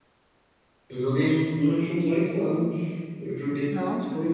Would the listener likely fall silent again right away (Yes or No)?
Yes